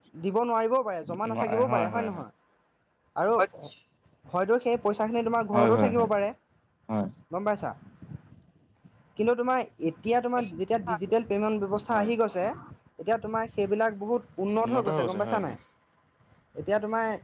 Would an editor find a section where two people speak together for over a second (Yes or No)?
Yes